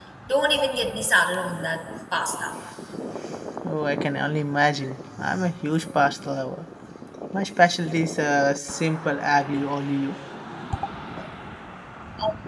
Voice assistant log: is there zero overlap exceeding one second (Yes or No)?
Yes